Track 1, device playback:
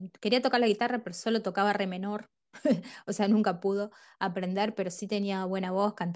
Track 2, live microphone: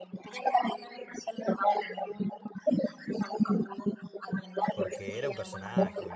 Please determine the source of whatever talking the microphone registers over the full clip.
both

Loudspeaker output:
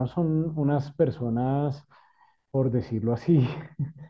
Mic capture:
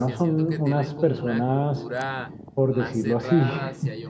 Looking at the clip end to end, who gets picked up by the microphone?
both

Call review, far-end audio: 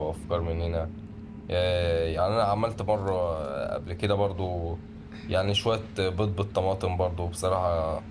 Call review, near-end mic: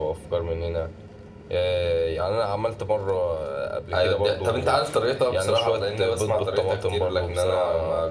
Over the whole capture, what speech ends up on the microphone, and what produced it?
both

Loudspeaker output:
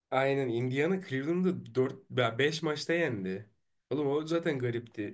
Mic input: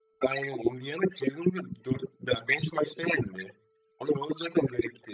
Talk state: echo only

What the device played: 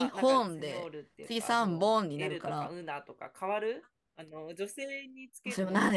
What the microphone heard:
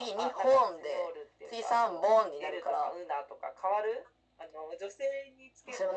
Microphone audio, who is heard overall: echo only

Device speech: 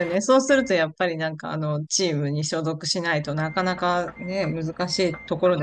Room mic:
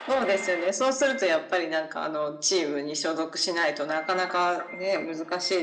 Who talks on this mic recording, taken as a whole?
echo only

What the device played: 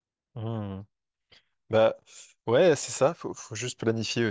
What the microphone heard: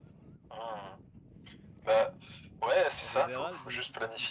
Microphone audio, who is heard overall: both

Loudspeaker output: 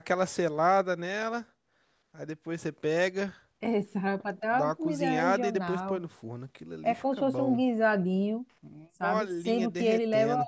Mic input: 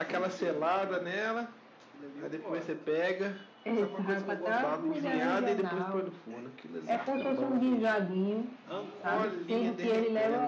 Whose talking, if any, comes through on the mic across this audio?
both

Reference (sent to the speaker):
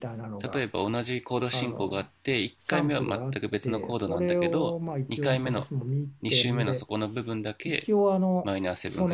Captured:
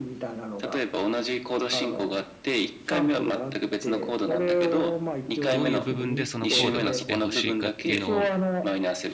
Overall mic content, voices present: both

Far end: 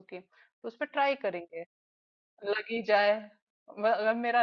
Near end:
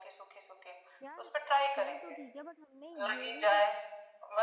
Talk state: both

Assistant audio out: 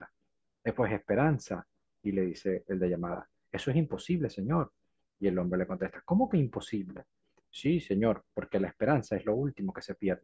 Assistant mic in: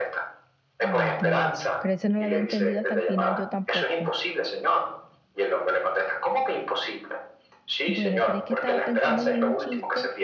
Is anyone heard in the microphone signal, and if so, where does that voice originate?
both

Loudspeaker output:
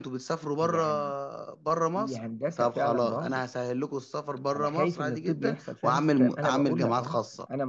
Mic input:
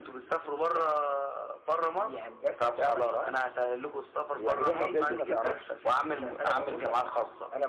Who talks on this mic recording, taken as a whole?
both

